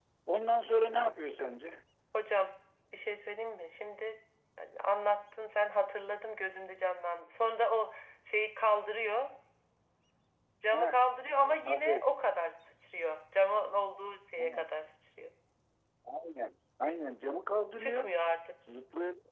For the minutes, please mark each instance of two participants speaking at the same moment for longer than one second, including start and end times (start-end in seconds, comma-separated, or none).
none